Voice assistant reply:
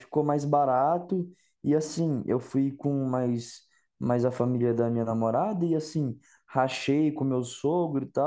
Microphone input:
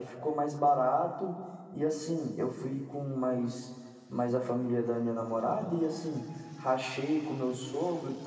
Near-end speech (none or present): present